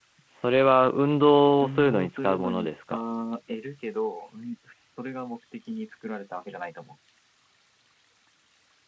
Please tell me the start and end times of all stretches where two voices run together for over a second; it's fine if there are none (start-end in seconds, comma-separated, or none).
1.6-2.9